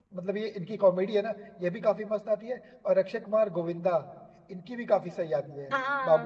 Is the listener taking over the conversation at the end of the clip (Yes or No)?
Yes